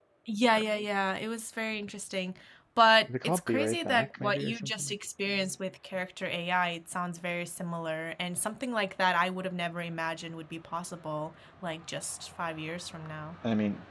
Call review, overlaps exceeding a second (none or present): present